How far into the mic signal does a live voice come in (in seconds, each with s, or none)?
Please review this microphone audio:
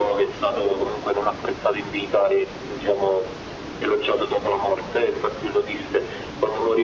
none